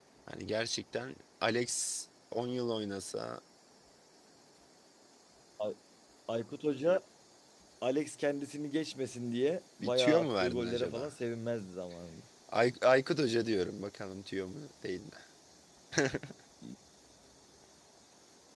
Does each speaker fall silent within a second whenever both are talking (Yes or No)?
No